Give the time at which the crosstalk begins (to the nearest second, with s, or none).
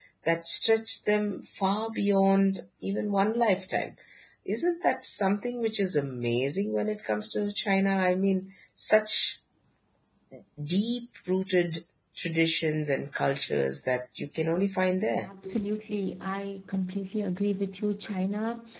none